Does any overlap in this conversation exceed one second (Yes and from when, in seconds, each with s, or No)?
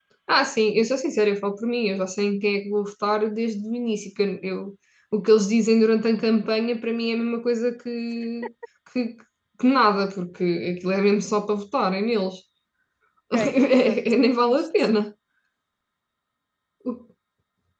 Yes, from 13.5 s